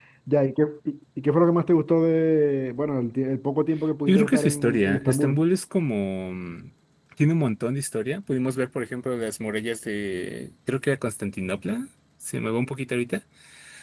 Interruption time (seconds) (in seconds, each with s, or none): 4.1 s